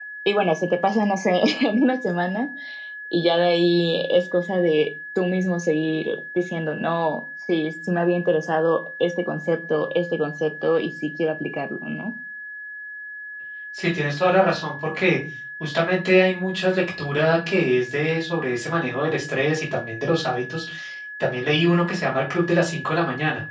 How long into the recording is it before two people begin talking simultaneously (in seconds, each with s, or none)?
none